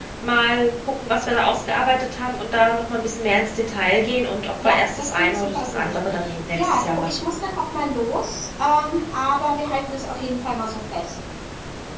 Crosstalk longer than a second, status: present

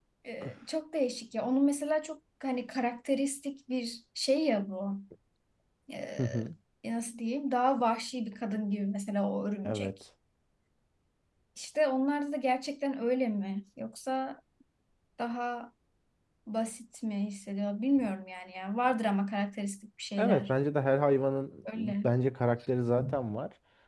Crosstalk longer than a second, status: none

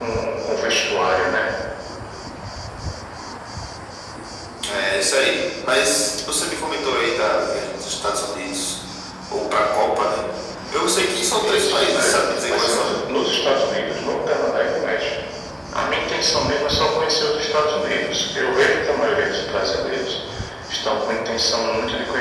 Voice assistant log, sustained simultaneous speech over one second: present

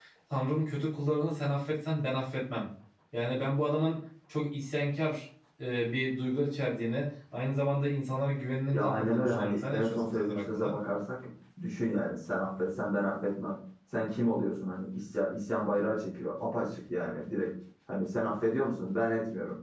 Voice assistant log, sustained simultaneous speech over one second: present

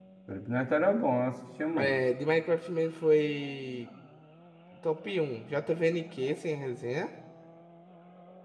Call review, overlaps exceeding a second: none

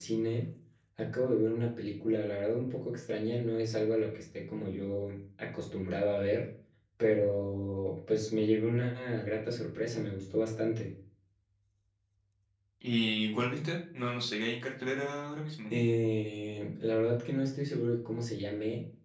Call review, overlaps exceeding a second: none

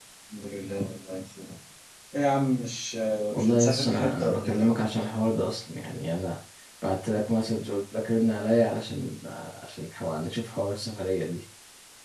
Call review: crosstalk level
present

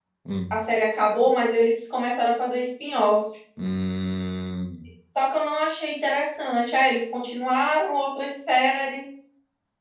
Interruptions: none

